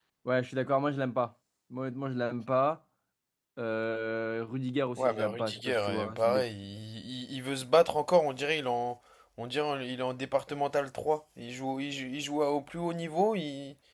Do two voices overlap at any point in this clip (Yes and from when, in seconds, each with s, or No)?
Yes, from 5.0 s